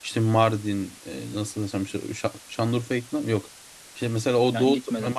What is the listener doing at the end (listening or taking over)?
listening